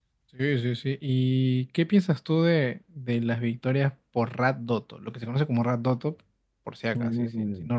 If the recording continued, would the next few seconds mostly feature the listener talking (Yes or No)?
Yes